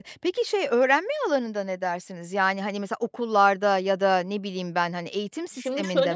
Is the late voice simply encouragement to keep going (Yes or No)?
No